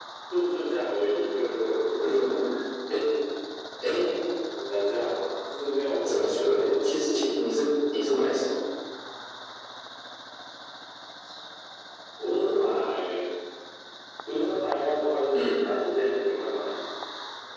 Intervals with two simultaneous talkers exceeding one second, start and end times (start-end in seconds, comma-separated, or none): 6.0-7.3